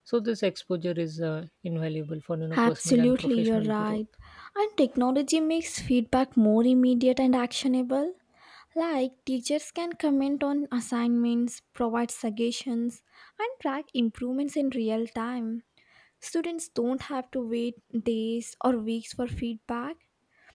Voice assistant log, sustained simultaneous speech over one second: present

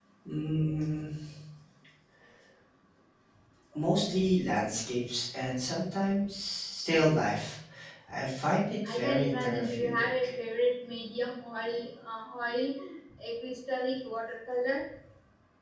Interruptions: present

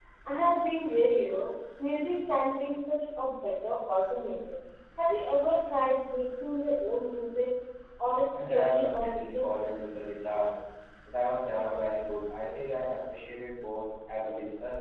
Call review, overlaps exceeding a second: present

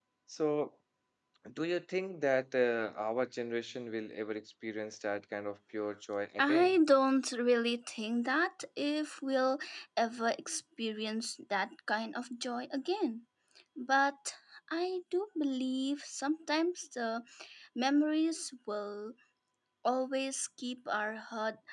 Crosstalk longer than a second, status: none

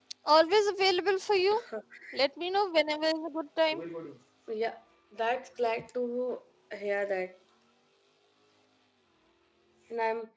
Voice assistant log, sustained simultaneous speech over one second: none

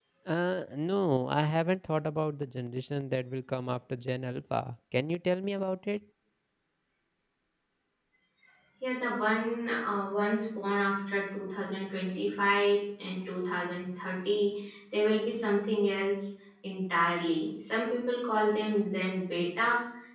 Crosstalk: none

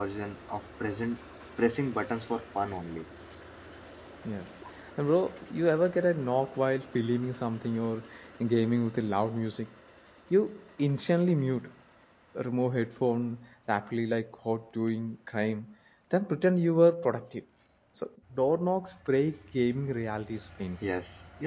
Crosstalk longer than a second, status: none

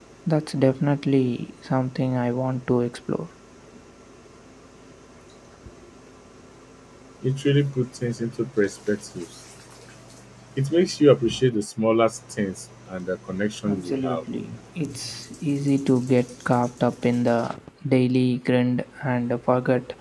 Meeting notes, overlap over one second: none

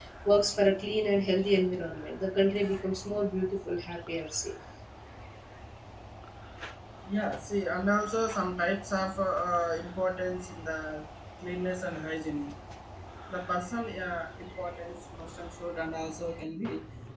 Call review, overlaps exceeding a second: none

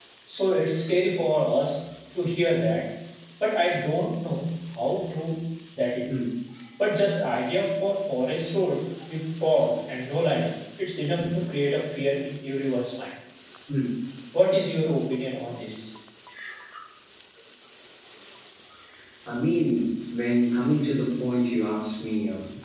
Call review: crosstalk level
none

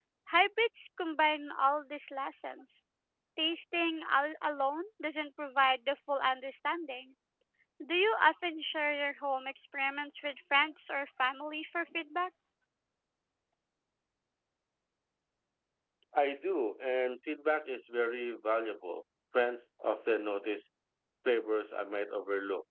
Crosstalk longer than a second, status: none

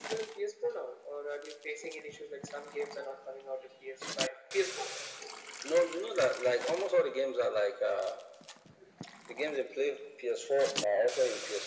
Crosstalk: none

